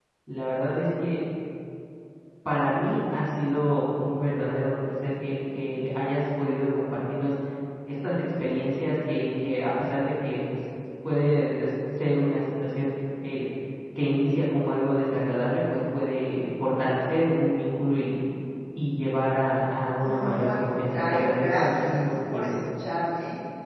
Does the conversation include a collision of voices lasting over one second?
Yes, from 20.0 s

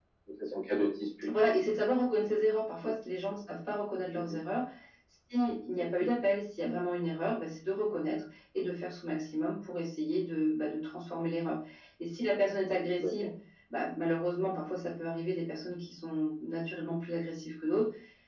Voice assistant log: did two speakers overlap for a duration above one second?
No

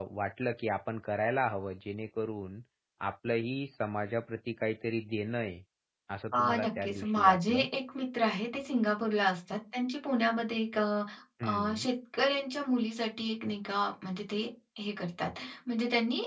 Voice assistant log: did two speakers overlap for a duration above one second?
Yes, from 6.3 s

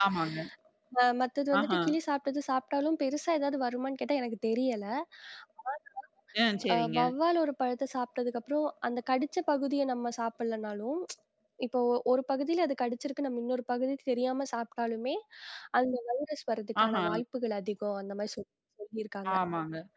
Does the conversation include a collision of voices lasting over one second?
No

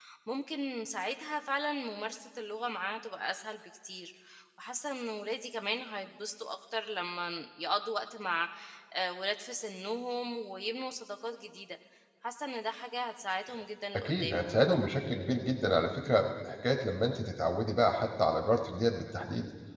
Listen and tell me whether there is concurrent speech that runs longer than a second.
No

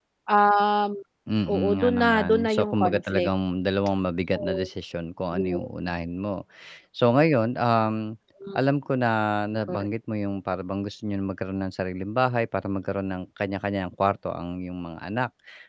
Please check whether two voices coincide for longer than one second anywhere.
Yes, from 1.5 s

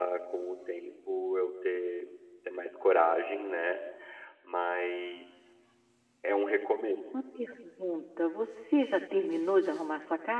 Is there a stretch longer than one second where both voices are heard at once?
No

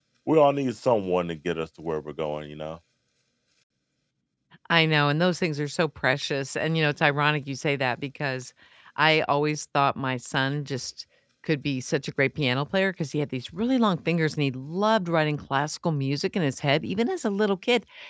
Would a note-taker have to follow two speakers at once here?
No

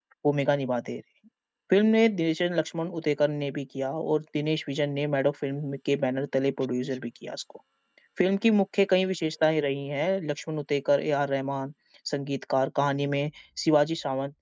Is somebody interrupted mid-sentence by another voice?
No

